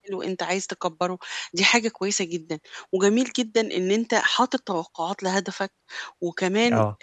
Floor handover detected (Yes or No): No